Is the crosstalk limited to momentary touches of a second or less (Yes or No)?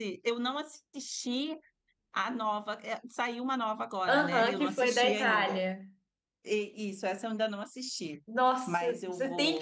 No